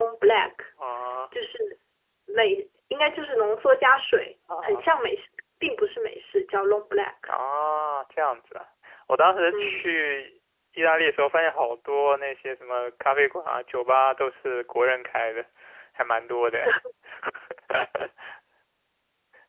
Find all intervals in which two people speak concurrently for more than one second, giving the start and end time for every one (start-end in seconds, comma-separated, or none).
none